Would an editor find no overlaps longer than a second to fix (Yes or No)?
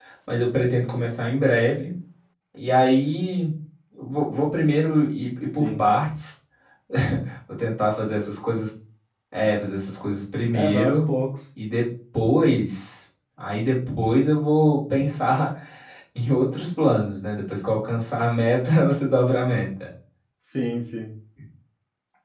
Yes